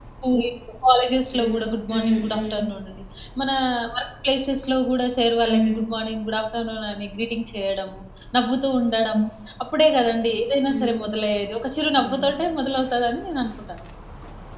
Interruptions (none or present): present